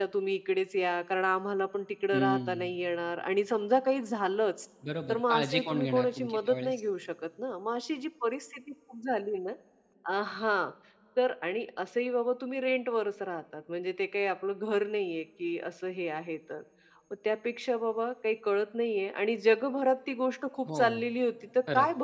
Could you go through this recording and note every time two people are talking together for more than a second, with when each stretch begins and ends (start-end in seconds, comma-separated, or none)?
5.1-6.8